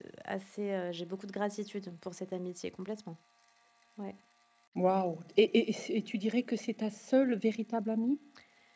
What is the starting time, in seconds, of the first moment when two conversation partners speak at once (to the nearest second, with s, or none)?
none